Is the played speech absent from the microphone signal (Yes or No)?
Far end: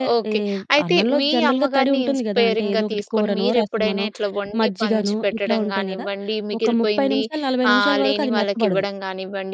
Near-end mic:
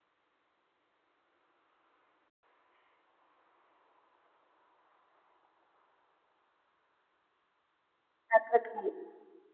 Yes